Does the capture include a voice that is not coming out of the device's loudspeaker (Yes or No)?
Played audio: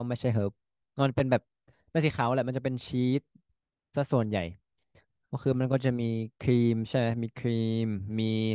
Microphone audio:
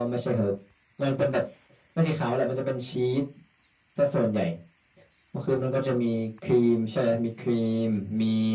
No